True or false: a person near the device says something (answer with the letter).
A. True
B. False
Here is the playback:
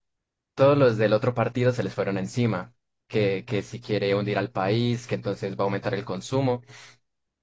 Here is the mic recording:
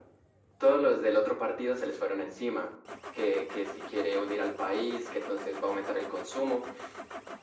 B